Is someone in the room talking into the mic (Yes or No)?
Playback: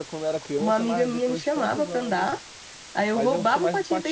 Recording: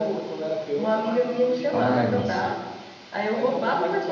Yes